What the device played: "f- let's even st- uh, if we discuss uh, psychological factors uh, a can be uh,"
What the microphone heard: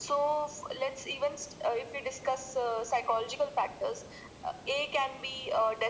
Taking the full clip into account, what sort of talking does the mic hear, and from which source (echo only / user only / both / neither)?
echo only